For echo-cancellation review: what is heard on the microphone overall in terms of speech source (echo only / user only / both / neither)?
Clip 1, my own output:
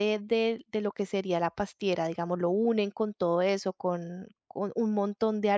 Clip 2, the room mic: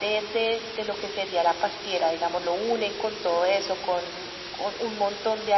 echo only